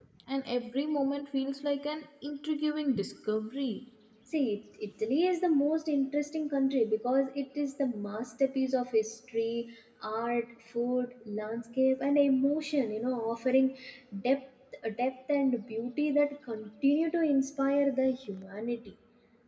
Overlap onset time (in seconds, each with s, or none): none